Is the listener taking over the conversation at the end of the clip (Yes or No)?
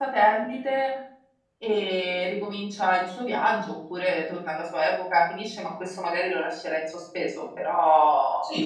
Yes